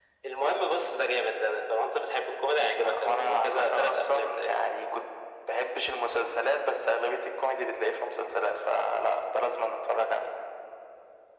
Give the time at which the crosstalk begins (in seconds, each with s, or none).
2.6 s